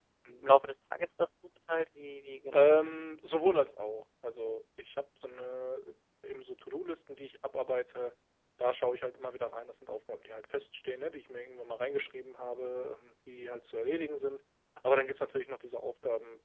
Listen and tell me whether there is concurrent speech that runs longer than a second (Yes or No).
No